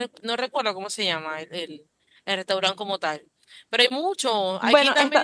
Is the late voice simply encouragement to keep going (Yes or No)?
Yes